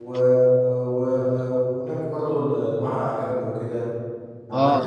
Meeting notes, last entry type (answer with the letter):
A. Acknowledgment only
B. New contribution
A